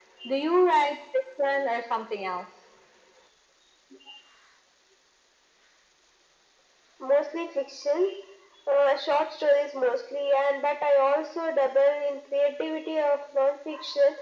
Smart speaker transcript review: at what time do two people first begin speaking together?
none

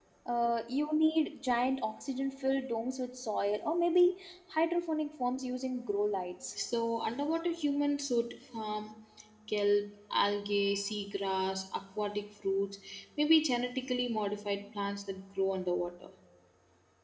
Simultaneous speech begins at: none

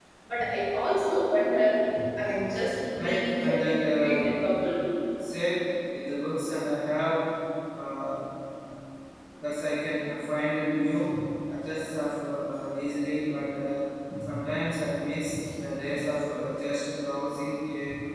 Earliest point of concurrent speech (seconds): 3.0 s

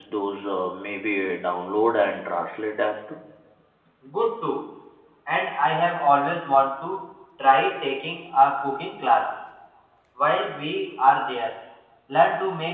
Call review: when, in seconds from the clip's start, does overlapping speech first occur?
none

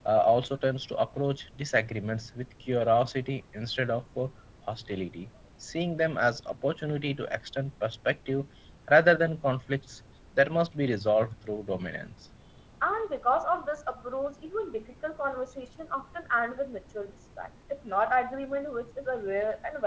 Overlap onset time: none

